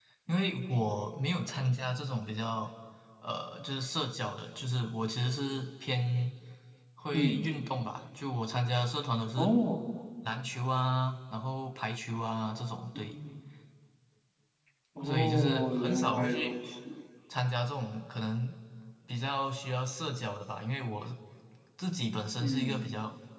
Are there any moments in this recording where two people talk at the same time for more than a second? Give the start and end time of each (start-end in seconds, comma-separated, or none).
15.0-16.5